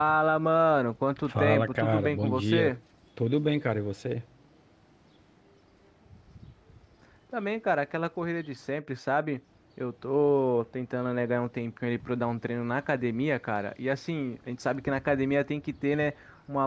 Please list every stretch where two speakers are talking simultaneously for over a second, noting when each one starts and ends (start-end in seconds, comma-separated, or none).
1.3-2.7